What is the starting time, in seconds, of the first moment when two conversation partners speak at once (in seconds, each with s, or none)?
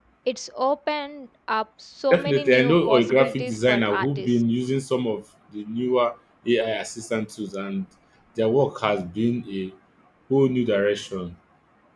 2.1 s